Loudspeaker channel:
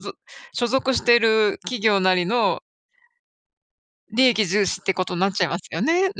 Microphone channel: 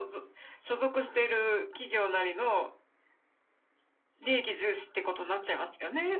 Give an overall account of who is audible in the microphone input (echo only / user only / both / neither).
echo only